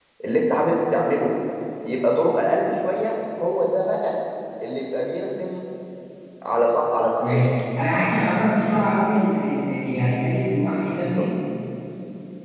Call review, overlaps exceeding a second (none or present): none